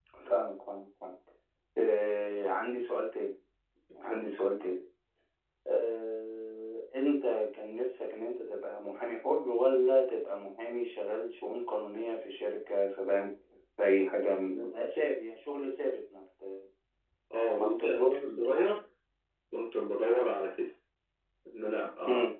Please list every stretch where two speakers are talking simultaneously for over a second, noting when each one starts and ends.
17.6-18.8

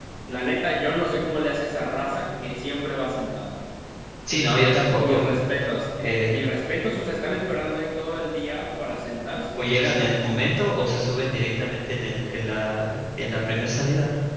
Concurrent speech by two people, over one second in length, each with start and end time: none

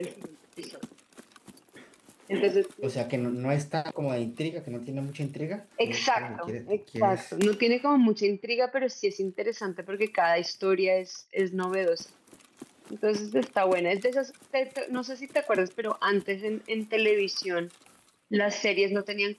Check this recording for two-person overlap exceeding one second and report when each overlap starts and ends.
5.8-7.2

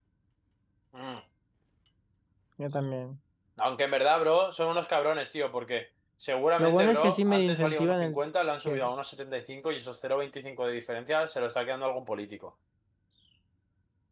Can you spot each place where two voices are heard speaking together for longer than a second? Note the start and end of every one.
6.6-8.2

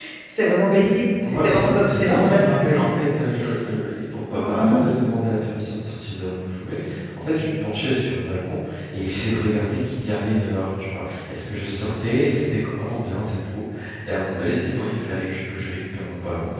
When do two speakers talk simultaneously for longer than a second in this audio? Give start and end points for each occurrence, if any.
1.3-2.8

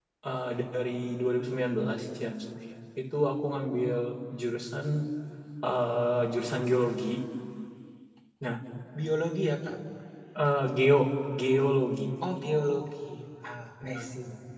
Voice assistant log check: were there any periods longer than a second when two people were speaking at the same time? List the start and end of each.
none

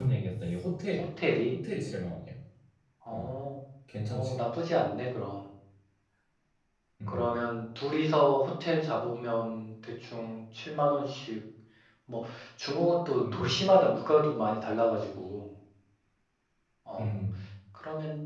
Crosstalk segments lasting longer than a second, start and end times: none

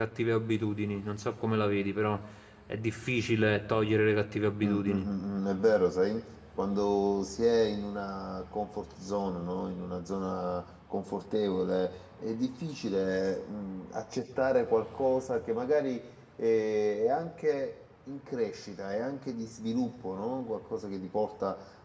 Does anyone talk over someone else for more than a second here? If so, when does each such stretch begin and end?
none

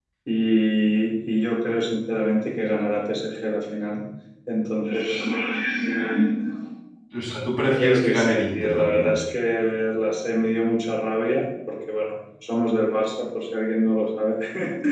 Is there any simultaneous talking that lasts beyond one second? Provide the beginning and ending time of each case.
7.6-9.2

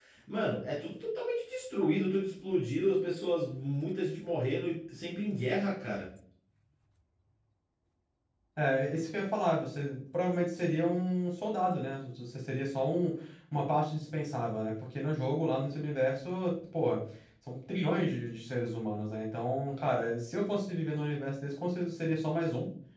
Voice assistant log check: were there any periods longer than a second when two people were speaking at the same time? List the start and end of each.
none

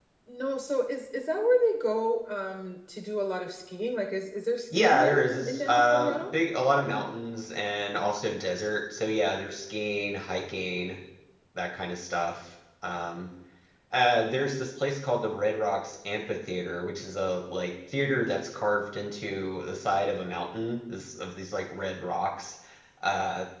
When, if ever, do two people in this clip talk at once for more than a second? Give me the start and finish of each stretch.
4.7-6.3

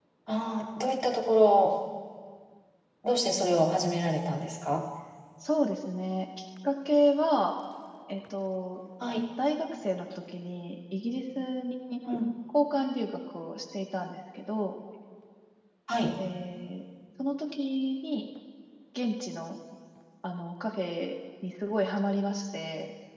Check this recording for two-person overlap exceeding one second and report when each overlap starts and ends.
none

